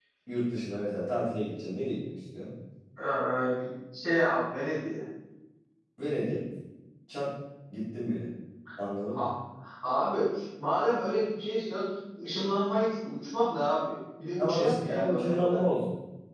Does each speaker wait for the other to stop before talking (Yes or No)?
No